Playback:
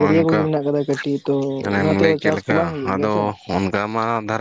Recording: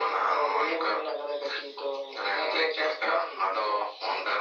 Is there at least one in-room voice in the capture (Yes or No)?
No